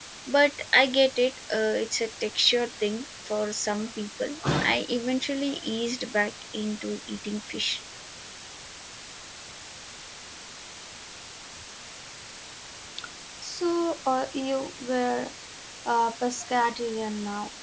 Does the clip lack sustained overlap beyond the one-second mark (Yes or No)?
Yes